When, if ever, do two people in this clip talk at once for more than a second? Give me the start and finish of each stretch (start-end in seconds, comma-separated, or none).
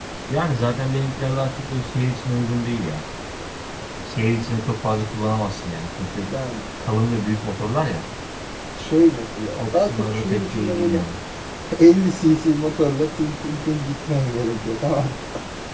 9.6-11.0